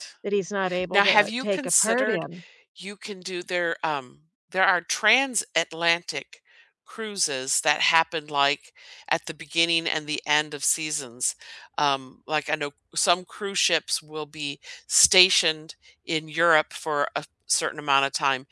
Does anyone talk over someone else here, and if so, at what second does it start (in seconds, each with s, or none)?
0.9 s